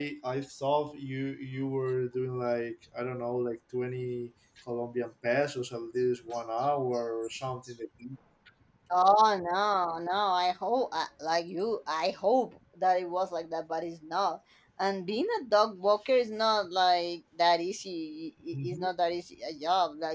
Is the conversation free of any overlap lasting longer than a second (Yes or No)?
Yes